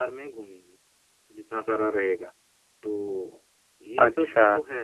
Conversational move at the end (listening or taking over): taking over